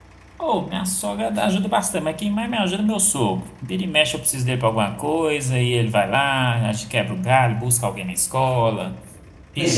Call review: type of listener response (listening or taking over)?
taking over